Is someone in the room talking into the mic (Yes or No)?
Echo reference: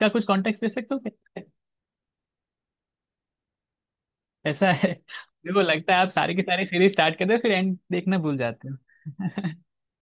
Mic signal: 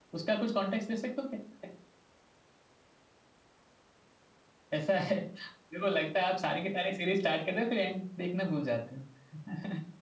No